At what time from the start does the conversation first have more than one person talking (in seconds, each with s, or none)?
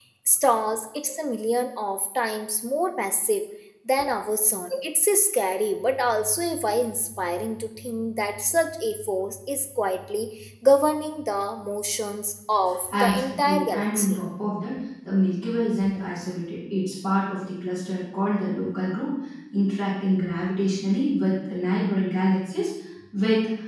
12.9 s